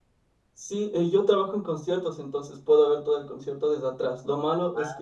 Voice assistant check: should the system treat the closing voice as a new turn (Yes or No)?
No